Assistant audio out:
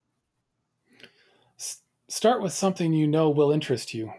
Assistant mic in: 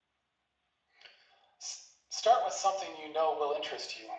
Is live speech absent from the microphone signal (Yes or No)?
Yes